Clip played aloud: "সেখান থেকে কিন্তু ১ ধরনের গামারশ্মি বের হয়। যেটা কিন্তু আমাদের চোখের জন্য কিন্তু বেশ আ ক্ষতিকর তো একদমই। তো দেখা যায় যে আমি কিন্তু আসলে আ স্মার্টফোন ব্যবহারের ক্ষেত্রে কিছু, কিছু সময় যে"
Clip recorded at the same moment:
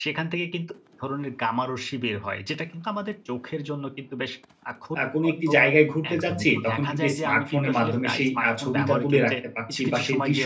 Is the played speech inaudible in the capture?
No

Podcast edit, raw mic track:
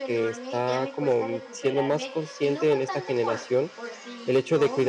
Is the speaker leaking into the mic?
Yes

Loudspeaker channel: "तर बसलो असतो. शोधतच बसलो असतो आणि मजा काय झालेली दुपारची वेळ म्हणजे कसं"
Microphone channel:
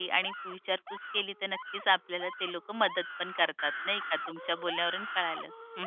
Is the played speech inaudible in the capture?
Yes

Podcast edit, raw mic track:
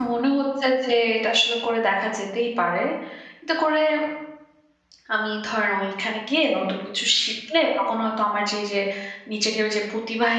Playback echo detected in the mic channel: No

